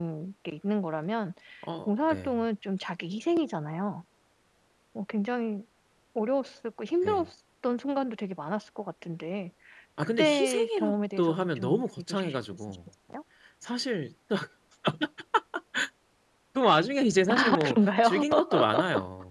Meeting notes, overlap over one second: present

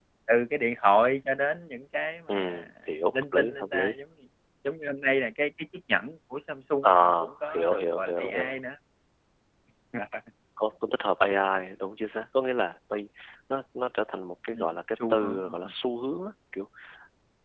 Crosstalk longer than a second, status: present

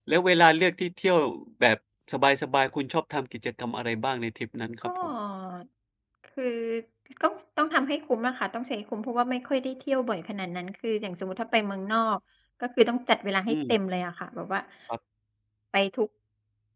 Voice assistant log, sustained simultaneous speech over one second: none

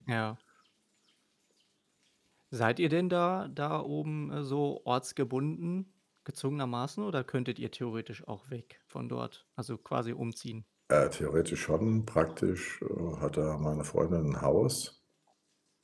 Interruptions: none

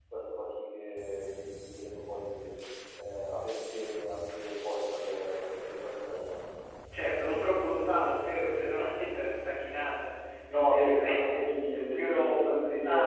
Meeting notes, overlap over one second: present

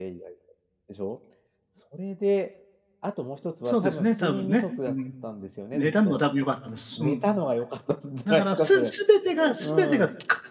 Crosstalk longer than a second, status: present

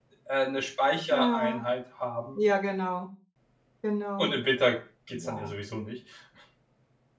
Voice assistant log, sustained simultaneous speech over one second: none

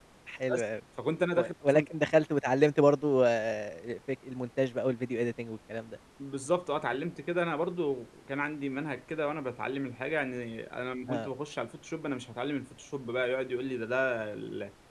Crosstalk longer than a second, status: none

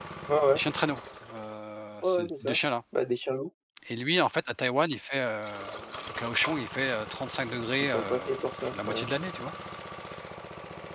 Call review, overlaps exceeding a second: present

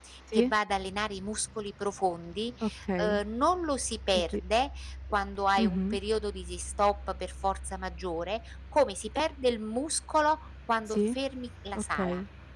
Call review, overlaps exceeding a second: none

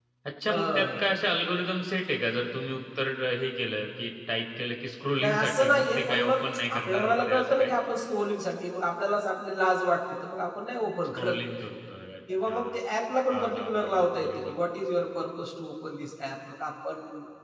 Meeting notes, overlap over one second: present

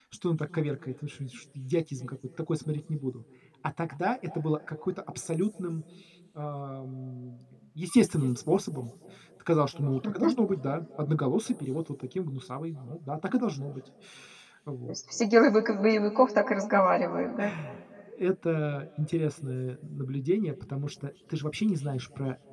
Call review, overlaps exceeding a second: none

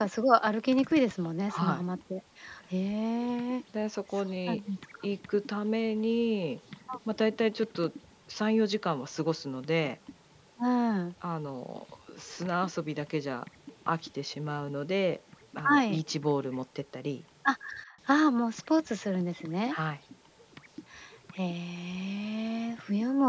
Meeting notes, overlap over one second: none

